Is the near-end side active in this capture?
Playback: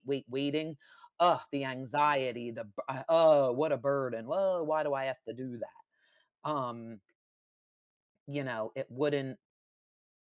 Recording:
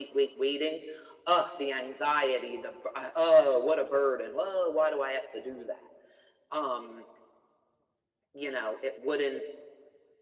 No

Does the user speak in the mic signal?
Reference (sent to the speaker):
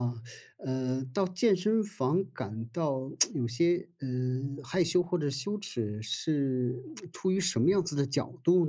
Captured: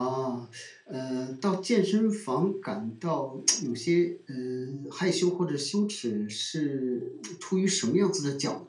No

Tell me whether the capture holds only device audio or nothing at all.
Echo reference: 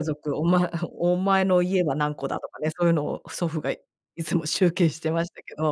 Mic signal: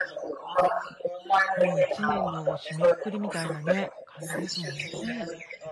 No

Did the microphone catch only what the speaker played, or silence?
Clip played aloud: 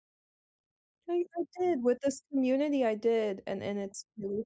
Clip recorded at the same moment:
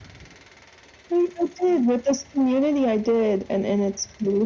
Yes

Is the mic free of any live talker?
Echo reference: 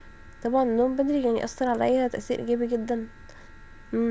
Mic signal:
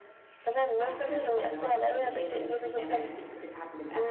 No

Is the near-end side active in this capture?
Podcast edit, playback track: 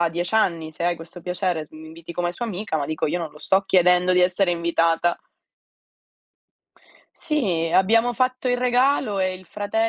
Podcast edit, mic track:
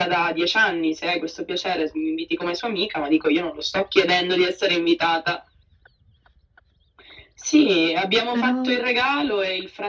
Yes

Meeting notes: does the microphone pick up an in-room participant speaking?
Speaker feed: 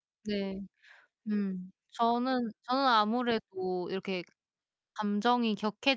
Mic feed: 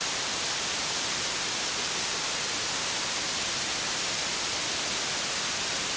No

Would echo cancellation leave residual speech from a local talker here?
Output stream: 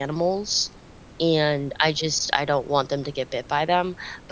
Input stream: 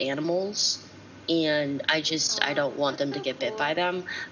Yes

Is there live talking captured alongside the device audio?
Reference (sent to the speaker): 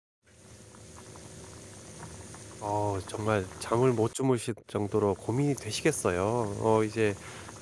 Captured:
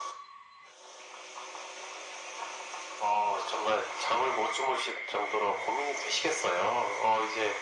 No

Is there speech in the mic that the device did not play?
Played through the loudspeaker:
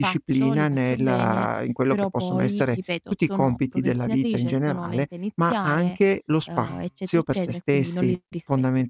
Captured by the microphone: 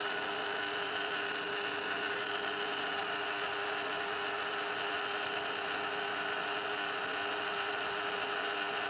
No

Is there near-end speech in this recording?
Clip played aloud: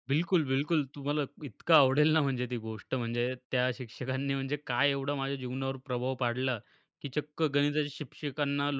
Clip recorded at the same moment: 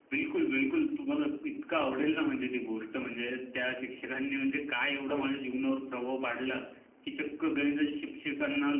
Yes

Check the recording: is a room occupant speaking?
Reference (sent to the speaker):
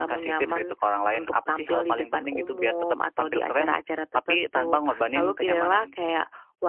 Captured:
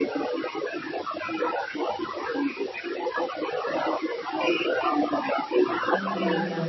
Yes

